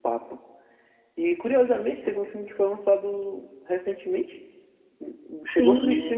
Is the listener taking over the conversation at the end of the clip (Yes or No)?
No